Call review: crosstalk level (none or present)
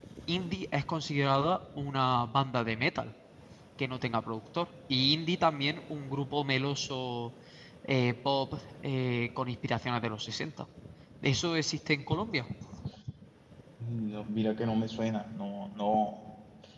none